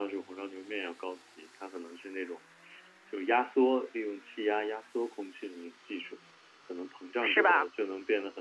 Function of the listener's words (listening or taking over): listening